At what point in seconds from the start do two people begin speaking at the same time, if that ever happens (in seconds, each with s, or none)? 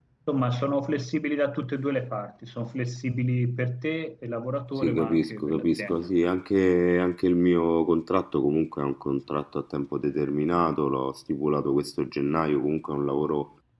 4.8 s